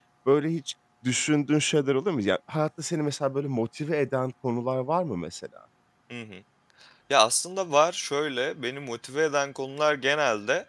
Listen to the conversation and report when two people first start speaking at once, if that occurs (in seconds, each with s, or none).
none